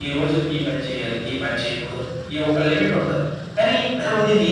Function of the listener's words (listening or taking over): listening